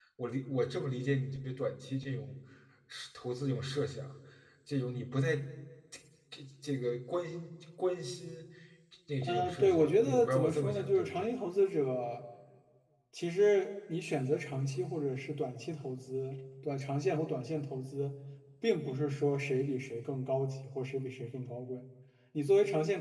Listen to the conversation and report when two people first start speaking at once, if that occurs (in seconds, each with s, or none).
9.2 s